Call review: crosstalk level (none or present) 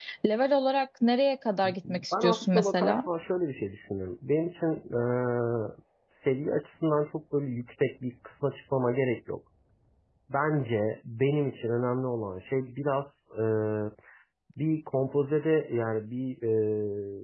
present